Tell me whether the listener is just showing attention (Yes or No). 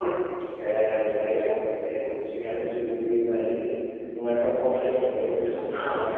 Yes